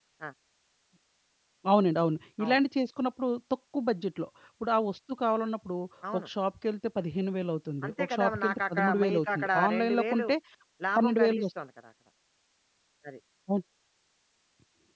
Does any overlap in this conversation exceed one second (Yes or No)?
Yes